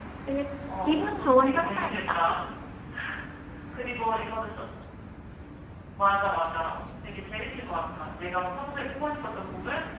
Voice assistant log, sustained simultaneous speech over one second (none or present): present